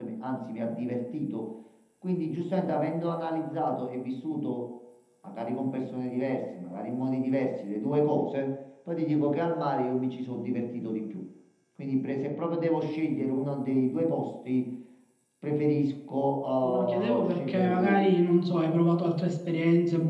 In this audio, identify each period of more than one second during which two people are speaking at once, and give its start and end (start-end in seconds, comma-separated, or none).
16.6-18.1